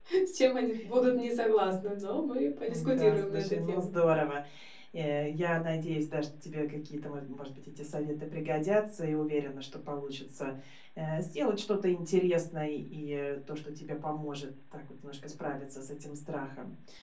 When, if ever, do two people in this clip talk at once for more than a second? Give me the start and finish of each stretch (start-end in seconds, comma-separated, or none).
2.7-3.9